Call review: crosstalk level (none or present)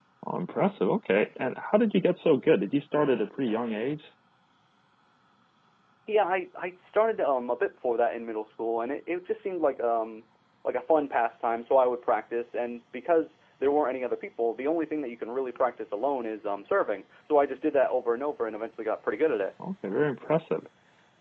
none